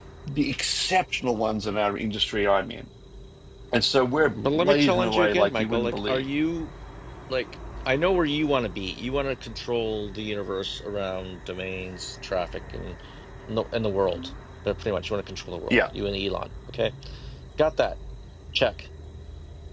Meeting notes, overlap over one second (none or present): present